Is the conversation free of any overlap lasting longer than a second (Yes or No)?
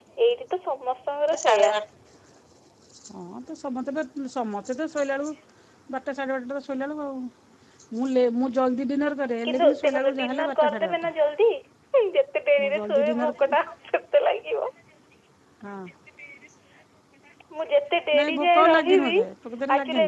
No